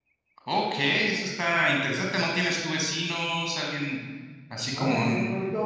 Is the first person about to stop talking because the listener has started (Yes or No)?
Yes